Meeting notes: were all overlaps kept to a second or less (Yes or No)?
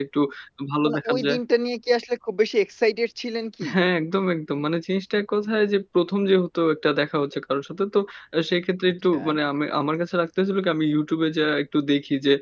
Yes